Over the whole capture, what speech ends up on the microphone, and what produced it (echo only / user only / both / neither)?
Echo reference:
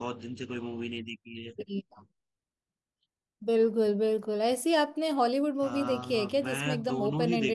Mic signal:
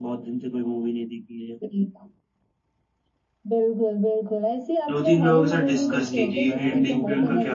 both